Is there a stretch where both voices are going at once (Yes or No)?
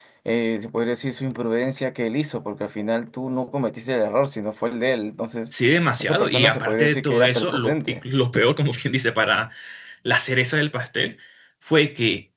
Yes